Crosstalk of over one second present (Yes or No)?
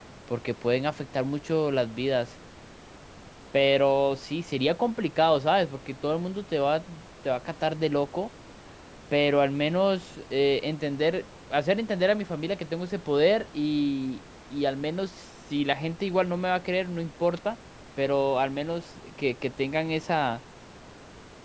No